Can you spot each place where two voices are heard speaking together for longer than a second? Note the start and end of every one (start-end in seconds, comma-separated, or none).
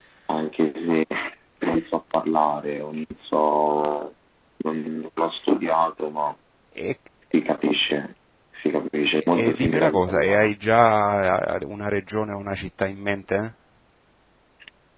9.3-10.5